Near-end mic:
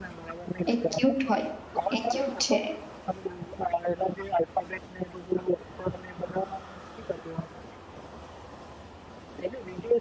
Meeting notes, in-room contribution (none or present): present